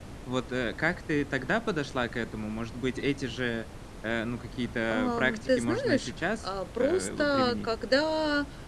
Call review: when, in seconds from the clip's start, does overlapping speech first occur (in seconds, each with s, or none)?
4.9 s